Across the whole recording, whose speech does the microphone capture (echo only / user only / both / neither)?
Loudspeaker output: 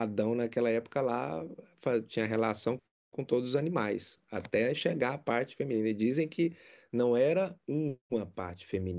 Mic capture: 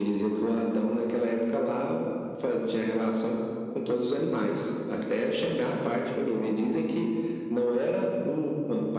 echo only